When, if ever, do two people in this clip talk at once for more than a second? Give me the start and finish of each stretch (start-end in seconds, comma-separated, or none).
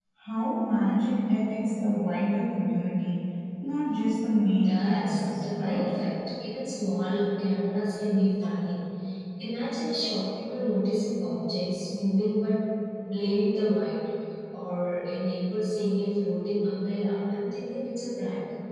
4.6-5.9